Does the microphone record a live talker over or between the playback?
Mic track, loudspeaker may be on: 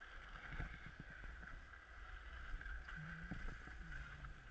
No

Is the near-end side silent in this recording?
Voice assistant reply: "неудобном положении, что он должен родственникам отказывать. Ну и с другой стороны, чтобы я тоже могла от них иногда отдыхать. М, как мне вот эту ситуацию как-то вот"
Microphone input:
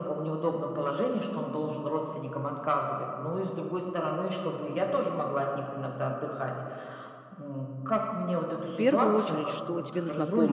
No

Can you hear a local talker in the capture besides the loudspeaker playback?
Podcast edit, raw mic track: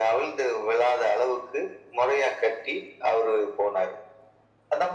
No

